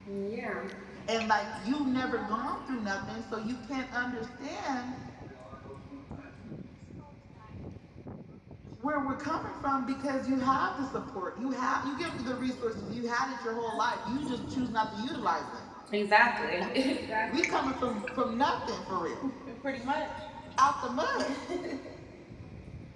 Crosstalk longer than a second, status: none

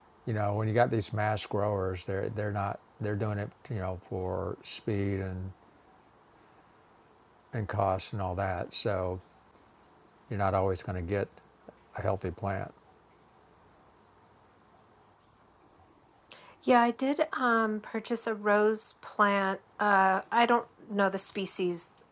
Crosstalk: none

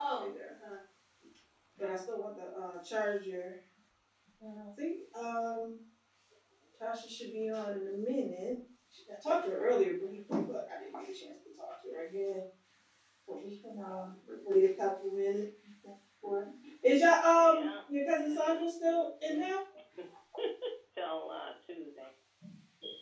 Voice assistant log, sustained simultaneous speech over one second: present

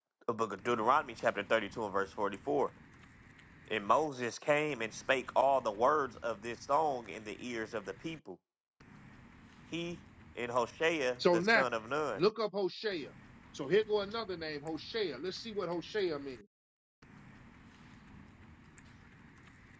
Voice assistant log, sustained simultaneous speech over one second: none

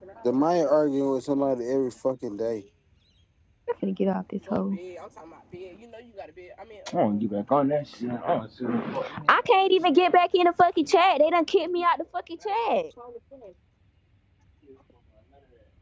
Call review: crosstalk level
none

